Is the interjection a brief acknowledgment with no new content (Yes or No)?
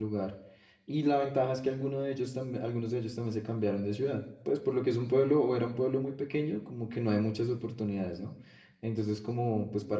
Yes